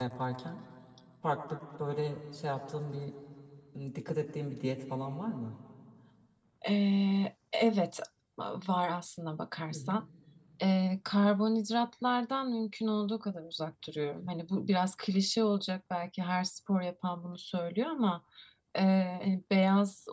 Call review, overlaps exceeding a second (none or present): none